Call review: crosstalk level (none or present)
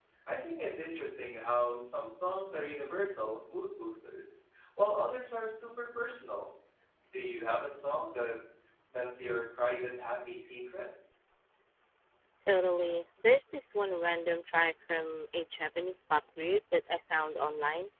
none